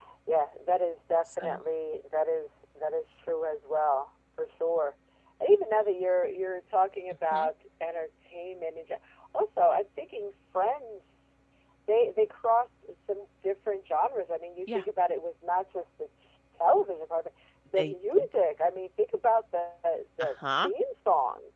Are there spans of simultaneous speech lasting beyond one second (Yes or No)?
No